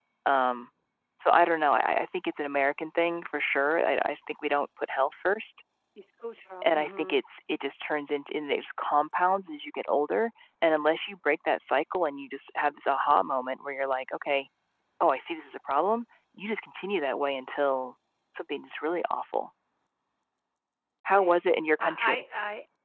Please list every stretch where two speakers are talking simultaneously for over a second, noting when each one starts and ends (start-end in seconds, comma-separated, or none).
none